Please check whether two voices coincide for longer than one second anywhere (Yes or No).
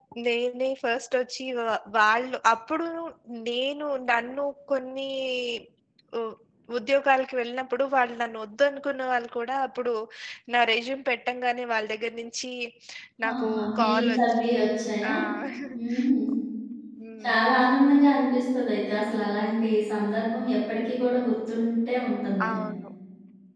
Yes